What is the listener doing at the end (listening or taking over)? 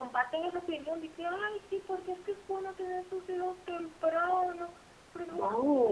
listening